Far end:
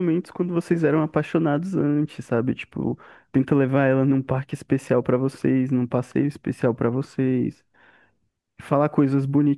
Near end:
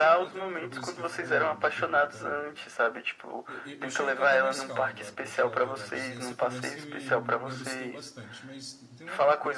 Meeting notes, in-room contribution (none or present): present